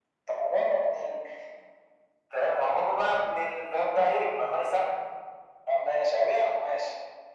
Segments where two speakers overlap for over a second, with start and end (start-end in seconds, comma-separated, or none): none